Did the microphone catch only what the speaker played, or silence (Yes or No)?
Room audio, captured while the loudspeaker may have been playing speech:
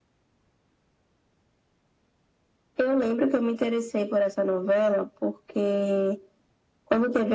Yes